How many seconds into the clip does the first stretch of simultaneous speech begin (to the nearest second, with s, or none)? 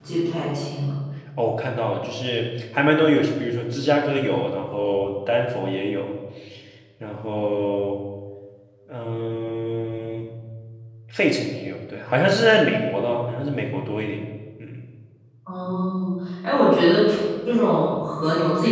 none